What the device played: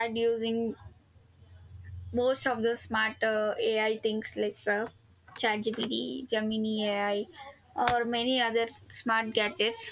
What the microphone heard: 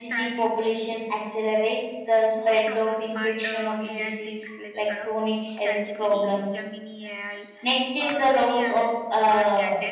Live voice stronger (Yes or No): Yes